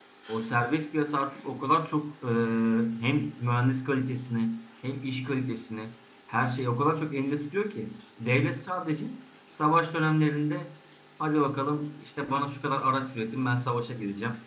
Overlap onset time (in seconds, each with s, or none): none